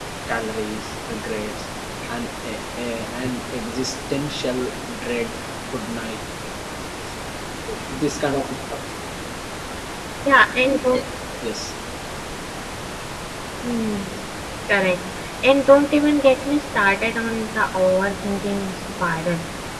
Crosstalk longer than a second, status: none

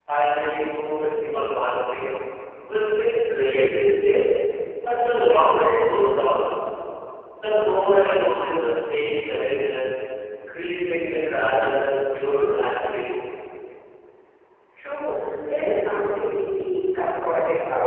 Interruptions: none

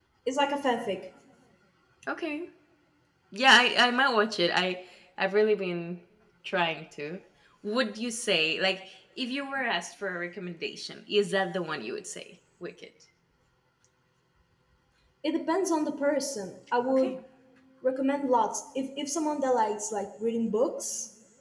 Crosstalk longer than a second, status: none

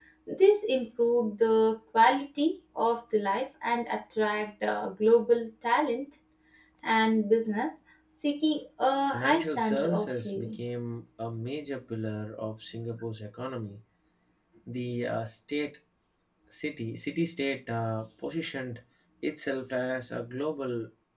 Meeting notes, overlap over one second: present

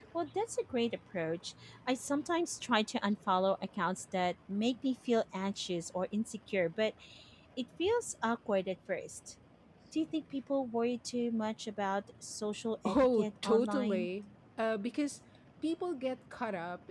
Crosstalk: present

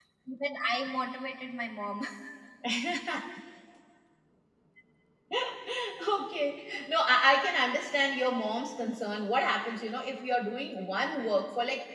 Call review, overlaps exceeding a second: none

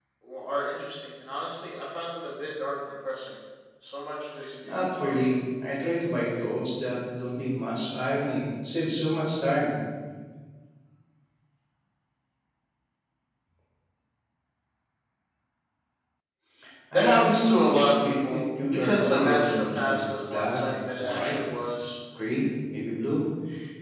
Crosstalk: present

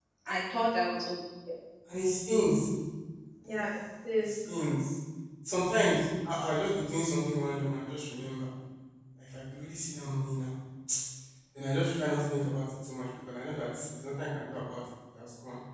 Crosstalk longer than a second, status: none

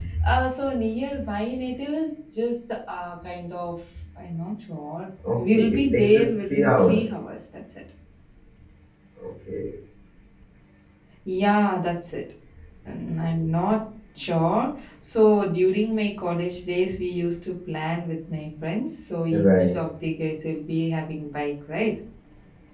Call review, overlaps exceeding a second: present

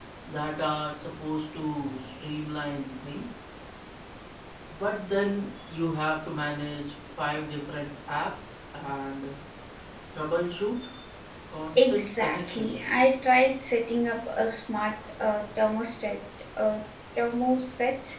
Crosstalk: present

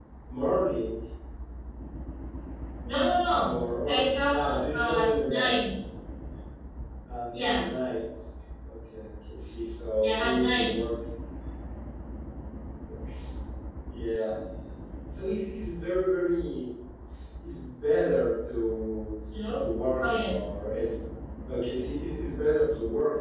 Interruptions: present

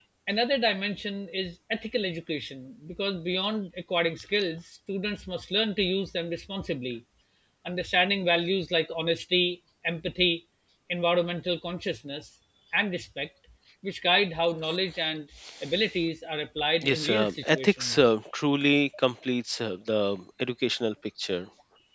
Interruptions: present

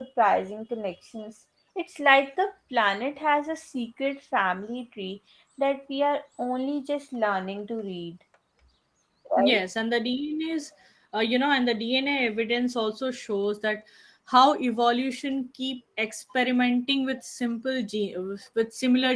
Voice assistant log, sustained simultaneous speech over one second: none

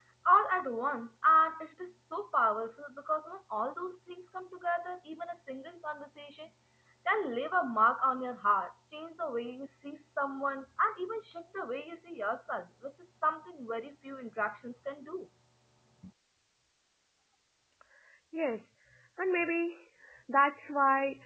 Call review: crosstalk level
none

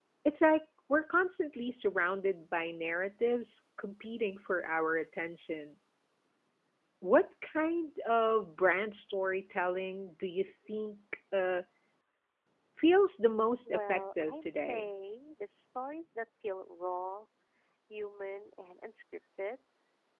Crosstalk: present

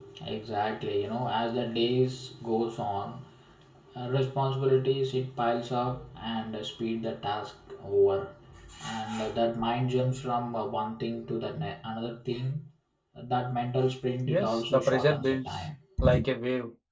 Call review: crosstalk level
present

